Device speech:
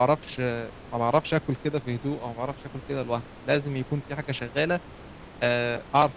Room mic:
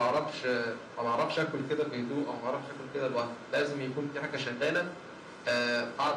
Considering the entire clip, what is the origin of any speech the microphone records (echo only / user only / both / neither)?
echo only